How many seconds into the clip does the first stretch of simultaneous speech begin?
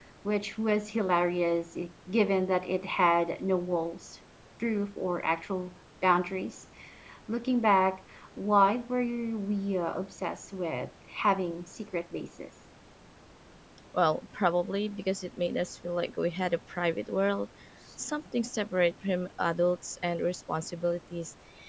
none

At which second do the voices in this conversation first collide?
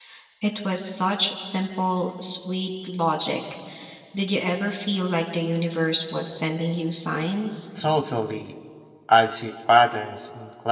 none

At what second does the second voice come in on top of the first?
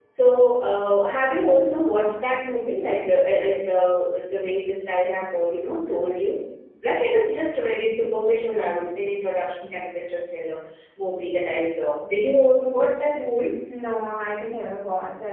none

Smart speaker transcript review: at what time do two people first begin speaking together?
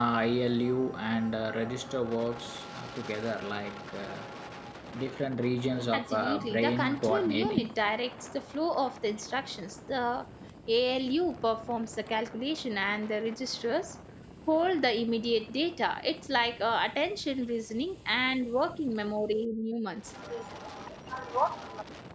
5.9 s

